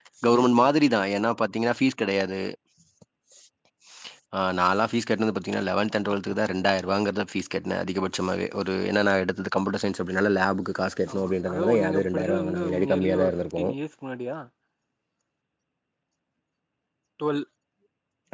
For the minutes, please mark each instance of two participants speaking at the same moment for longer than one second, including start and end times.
11.1-13.6

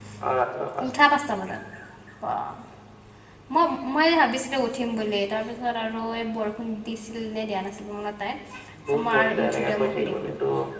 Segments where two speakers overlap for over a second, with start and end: 8.9-10.3

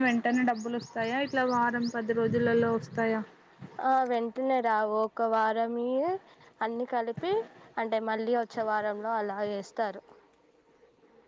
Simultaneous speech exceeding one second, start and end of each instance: none

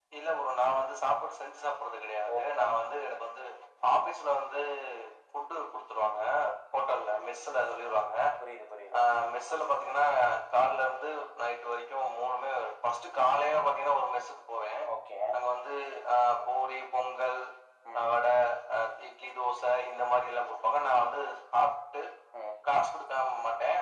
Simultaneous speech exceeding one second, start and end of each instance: none

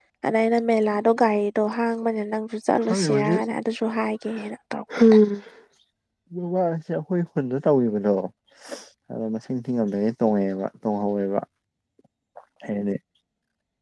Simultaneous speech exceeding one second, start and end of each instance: none

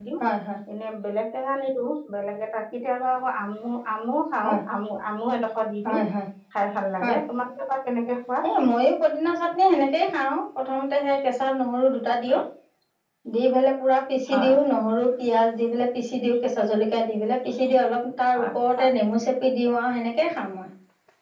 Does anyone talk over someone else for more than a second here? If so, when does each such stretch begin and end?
none

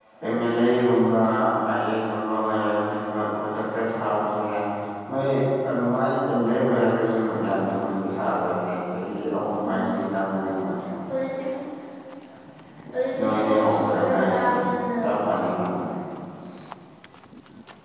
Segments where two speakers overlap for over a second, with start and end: 13.2-14.5

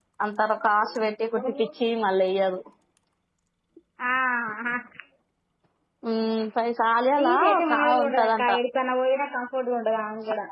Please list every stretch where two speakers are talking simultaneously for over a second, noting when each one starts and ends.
7.2-8.5

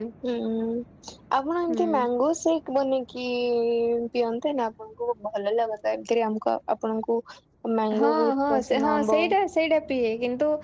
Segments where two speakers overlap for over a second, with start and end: 8.0-9.2

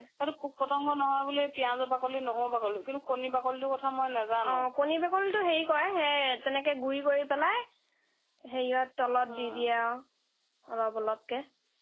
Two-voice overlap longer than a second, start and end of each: none

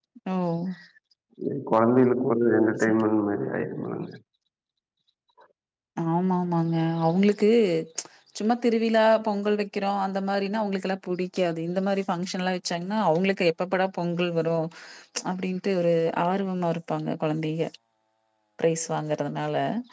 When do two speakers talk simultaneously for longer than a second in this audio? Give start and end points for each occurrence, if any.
none

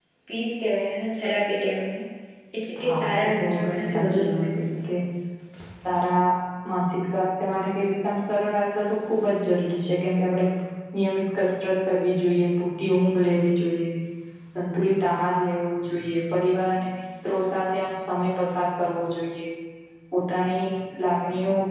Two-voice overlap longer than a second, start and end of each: 2.9-4.8

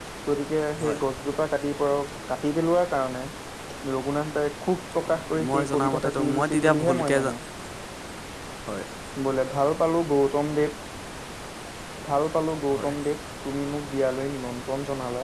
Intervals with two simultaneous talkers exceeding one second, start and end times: 5.0-7.3

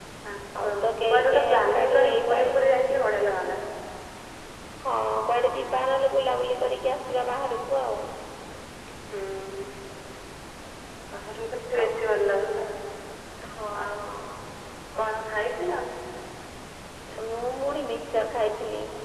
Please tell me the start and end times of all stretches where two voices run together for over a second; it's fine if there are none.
1.1-3.0

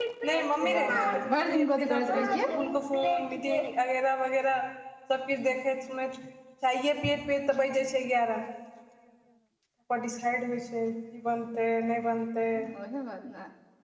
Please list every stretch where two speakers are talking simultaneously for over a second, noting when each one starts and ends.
0.7-2.5

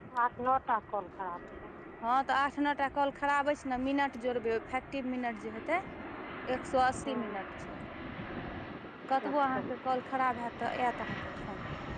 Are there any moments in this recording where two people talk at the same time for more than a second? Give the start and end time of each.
none

